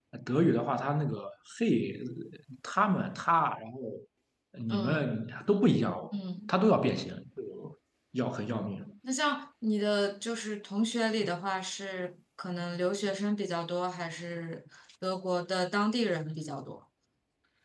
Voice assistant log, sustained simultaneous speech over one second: none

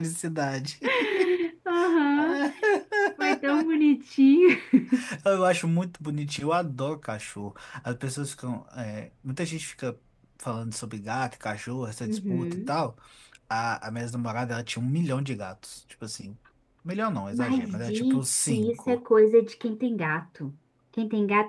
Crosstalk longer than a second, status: present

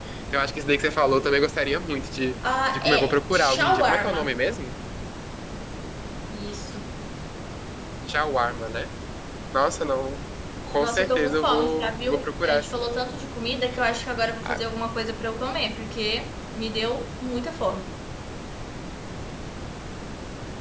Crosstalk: present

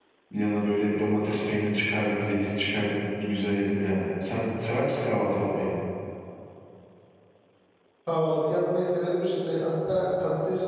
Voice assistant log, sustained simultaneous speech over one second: none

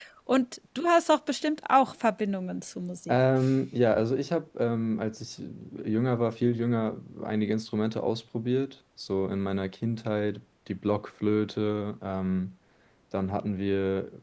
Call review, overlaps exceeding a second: none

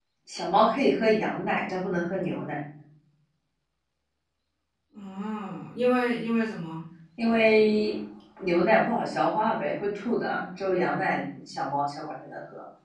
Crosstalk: none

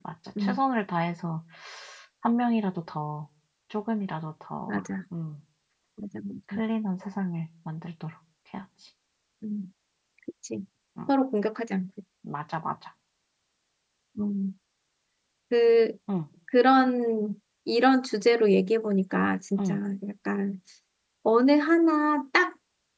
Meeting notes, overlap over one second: none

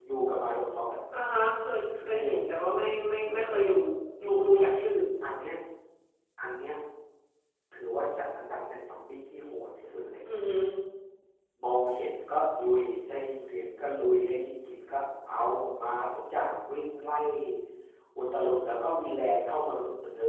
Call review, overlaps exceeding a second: none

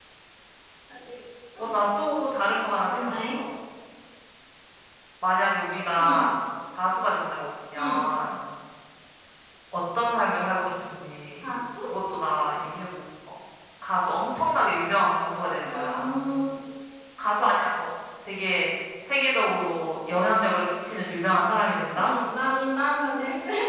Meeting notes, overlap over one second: none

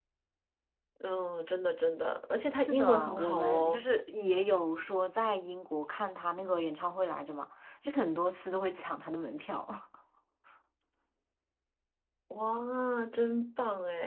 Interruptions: present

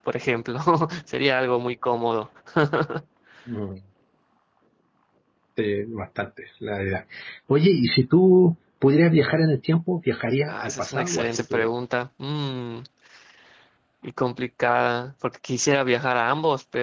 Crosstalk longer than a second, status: present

